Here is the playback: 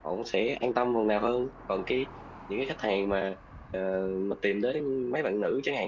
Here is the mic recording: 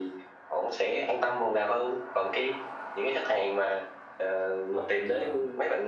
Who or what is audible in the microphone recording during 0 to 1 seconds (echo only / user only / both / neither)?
echo only